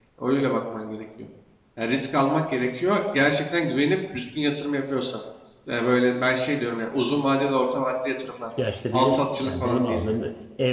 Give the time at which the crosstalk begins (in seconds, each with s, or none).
8.9 s